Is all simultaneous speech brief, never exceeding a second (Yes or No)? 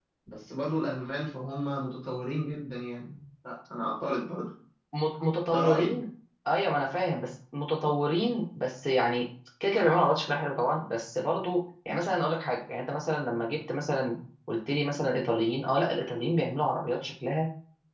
Yes